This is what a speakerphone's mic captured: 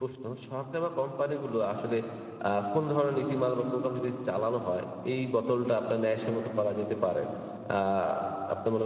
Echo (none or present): none